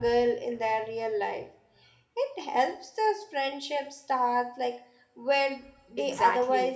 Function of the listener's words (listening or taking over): taking over